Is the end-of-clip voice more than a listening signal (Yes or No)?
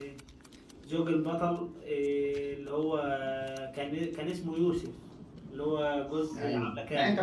Yes